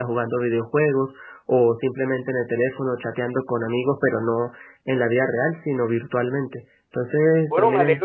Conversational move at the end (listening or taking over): taking over